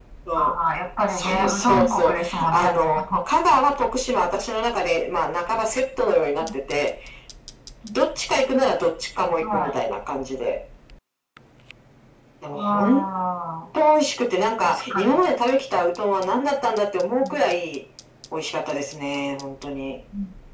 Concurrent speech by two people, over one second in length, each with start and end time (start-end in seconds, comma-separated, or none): 1.1-3.0